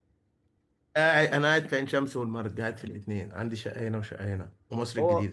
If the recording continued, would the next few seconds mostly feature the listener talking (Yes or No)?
Yes